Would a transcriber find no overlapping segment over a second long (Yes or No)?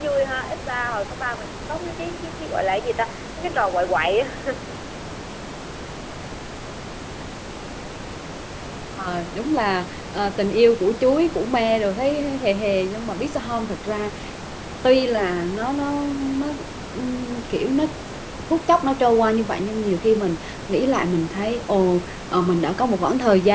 Yes